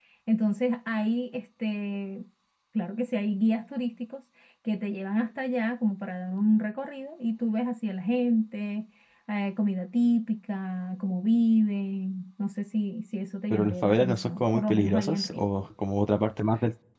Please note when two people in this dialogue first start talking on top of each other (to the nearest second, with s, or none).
14 s